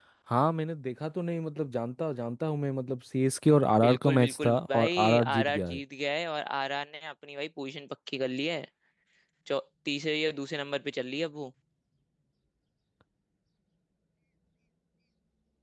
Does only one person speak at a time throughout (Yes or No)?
No